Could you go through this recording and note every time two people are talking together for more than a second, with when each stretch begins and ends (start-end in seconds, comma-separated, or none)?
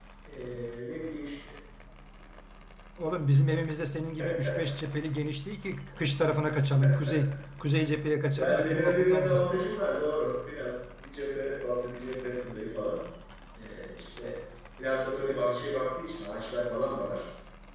8.3-9.6